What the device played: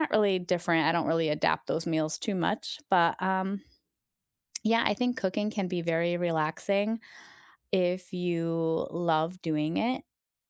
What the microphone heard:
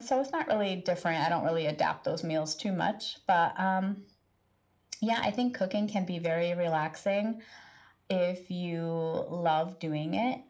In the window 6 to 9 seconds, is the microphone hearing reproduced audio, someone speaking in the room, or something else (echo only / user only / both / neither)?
echo only